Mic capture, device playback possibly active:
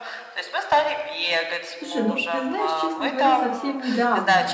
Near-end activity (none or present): present